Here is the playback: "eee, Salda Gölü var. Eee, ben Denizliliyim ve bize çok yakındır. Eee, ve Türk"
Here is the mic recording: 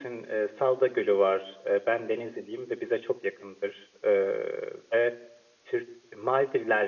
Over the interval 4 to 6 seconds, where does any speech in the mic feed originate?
echo only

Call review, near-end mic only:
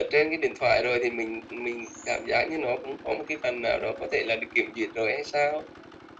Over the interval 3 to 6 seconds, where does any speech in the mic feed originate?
echo only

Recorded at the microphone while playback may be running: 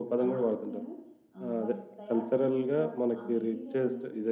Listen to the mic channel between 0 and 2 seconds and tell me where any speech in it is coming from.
both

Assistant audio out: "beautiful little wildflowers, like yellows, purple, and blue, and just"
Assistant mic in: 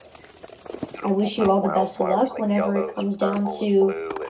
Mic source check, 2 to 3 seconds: both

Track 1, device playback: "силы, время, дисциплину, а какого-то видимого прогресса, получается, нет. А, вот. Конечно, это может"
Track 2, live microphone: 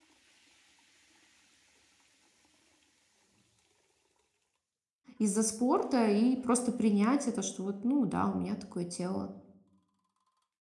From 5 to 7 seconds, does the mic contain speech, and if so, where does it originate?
user only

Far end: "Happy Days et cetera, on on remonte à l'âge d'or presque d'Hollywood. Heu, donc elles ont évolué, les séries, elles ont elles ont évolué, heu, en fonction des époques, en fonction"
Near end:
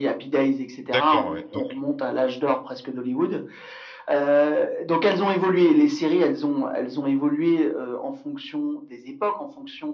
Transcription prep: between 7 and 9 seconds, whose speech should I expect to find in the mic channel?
echo only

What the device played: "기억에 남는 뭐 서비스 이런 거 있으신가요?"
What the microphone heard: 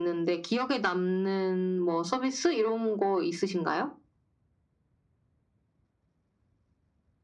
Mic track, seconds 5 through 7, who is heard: neither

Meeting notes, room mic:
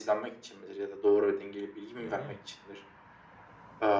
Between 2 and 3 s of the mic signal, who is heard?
both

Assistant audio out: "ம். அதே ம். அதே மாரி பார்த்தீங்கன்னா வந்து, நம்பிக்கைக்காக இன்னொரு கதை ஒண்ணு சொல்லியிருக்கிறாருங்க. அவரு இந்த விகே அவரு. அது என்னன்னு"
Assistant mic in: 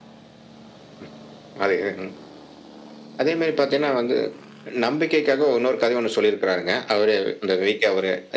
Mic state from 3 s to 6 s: echo only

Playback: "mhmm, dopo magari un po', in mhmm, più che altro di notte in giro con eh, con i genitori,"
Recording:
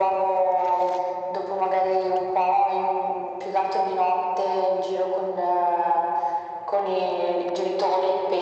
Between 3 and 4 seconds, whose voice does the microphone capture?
echo only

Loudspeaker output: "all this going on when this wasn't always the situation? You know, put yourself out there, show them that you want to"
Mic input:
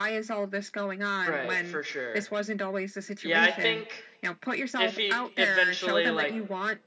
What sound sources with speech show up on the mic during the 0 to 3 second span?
both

